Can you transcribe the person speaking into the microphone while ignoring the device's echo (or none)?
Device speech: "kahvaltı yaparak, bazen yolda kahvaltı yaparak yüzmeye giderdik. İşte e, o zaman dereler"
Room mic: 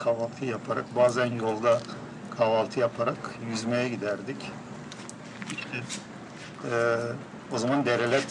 none